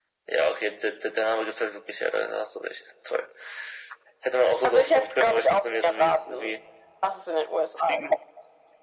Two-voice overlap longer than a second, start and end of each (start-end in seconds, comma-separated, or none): 4.6-6.6